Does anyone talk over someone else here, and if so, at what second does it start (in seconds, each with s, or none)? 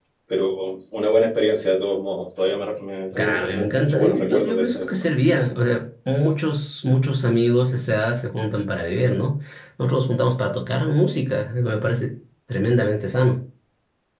3.1 s